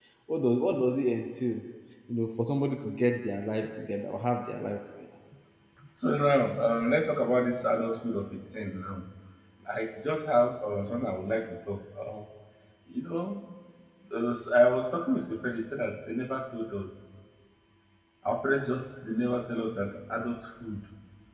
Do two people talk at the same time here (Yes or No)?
No